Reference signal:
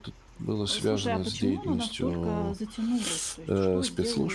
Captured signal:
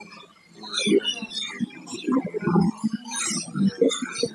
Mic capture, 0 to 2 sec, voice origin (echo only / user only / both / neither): echo only